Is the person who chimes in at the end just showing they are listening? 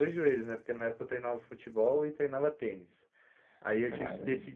Yes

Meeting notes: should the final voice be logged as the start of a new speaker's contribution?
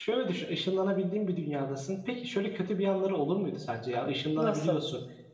No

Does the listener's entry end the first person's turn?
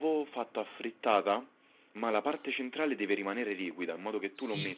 Yes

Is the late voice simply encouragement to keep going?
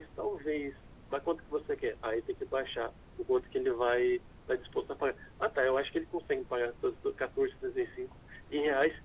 Yes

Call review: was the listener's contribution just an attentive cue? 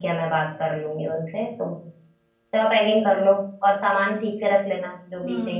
No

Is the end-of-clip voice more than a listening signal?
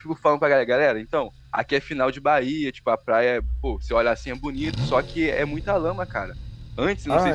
No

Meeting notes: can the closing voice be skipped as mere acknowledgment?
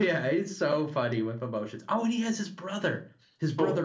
No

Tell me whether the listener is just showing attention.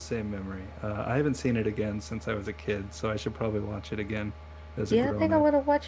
No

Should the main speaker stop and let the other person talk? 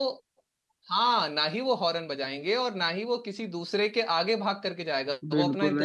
Yes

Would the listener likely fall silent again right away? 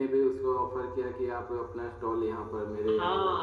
No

